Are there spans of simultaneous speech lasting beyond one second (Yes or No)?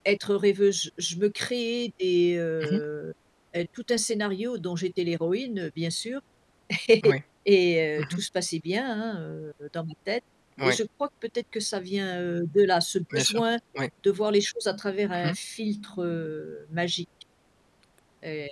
No